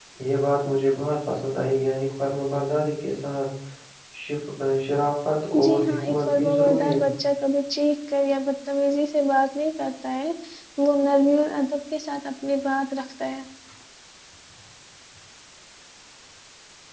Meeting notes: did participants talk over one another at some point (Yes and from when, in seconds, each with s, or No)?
Yes, from 5.6 s